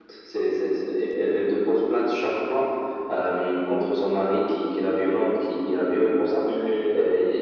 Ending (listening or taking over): listening